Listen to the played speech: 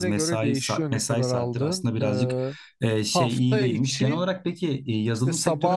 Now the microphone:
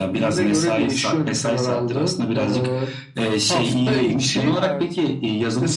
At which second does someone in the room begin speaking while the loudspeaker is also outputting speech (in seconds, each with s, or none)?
4.5 s